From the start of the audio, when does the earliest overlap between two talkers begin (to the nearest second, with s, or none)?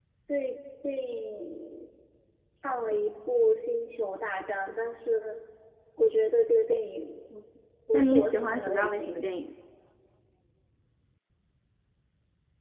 8 s